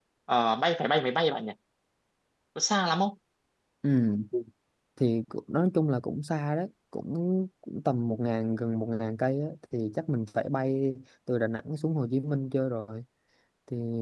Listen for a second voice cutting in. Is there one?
No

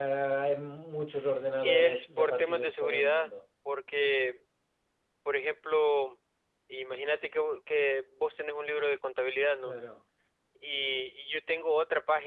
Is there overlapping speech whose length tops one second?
Yes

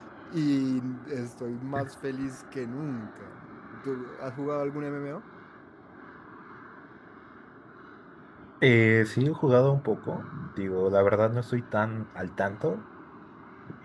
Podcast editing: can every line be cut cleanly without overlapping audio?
Yes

